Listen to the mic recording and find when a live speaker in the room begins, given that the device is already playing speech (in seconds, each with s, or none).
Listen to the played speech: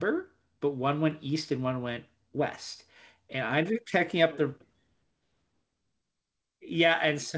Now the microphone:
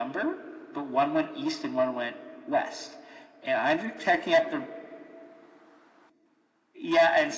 none